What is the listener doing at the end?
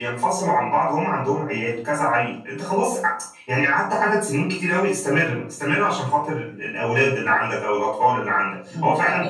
taking over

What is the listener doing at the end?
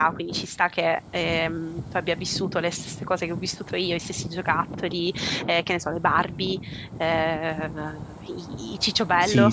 taking over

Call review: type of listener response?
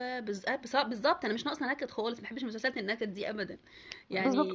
taking over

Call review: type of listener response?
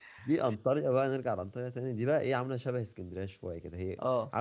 listening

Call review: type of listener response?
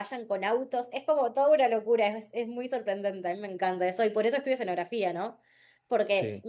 listening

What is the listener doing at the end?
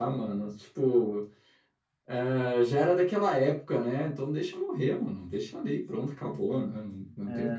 taking over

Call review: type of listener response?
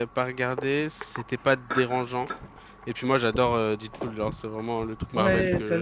taking over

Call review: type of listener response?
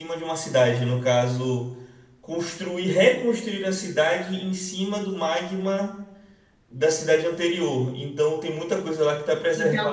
taking over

